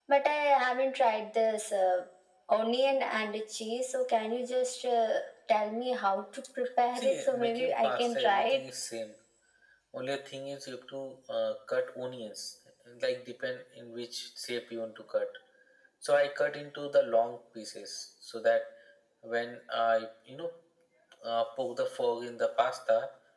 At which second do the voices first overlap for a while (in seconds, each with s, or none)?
7.0 s